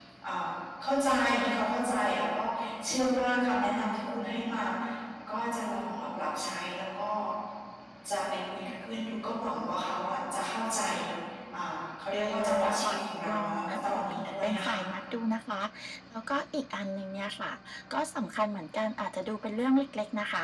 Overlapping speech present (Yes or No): Yes